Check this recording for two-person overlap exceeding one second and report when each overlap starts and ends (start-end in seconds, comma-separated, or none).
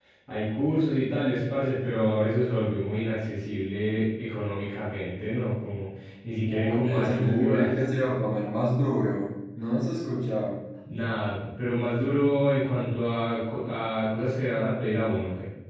6.4-7.7